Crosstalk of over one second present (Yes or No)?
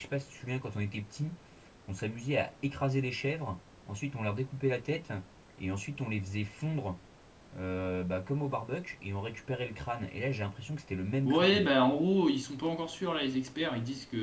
No